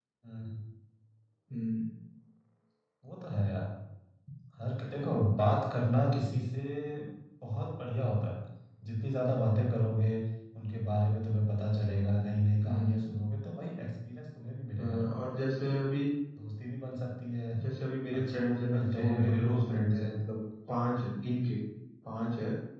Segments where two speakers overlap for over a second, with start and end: 18.2-20.2

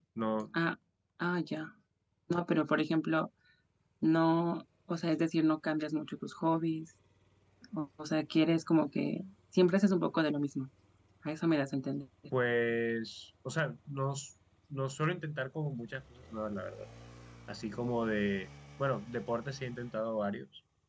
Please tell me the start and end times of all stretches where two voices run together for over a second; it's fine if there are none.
none

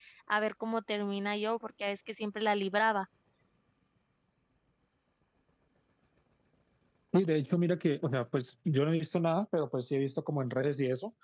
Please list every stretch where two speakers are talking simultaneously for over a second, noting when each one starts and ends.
none

